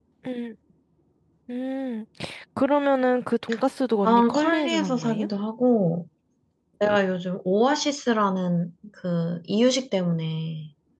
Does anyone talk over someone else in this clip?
Yes, from 4.0 s

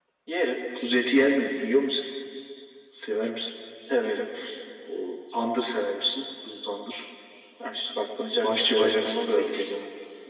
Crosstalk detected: Yes, from 8.4 s

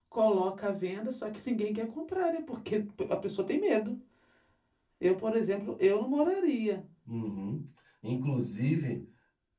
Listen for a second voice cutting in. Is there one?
No

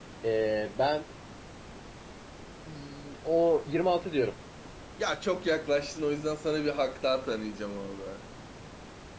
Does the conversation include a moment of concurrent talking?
No

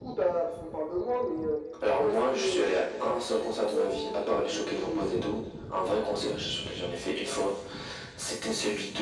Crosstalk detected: Yes, from 2.0 s

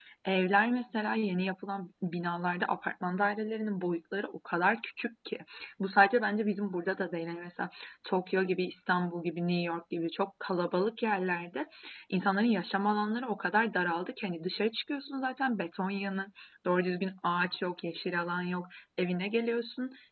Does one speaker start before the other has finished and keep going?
No

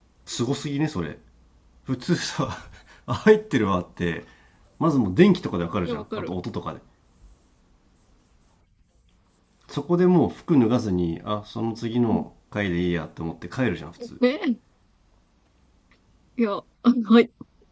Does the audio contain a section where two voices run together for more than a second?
No

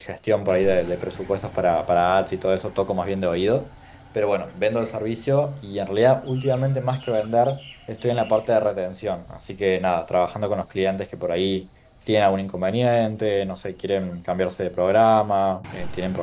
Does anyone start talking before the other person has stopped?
No

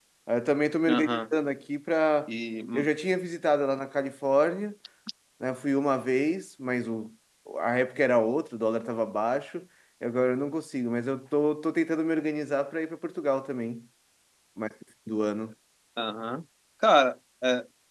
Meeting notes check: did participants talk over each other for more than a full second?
No

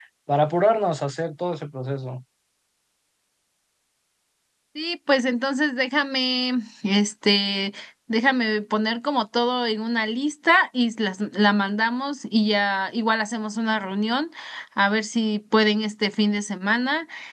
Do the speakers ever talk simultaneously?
No

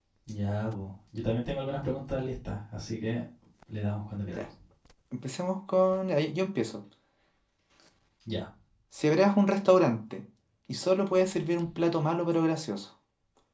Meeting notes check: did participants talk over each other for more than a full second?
No

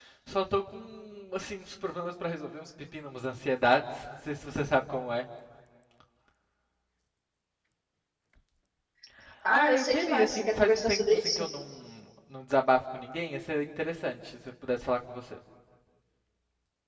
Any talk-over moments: Yes, from 9.5 s

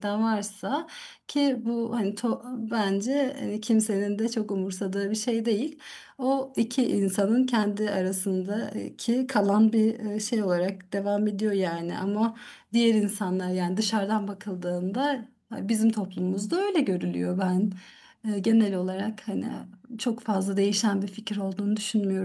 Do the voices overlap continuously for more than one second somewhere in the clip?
No

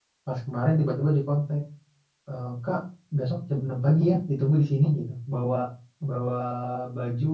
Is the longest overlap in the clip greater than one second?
No

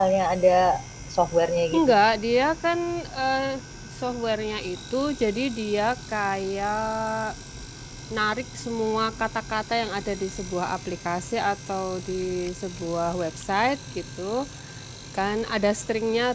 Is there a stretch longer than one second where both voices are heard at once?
No

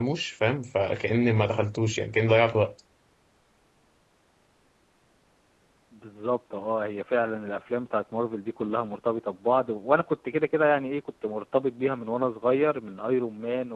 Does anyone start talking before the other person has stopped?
No

